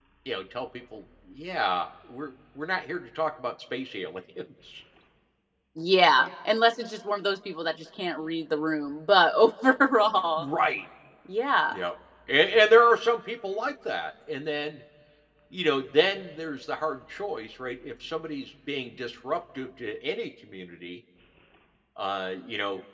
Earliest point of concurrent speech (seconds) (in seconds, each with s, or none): none